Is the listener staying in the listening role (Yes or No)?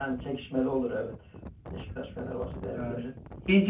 No